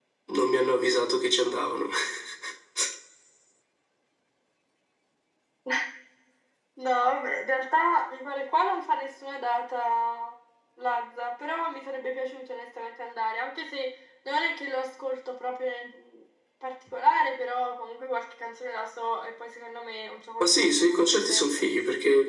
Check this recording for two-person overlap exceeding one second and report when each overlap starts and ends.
20.4-21.6

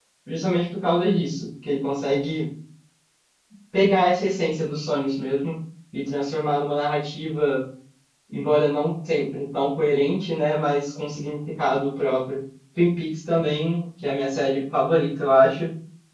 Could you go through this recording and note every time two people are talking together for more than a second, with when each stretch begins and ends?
none

